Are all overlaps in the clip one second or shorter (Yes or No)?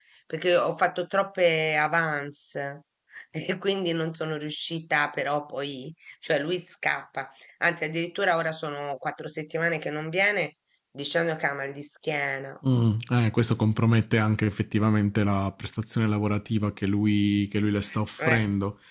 Yes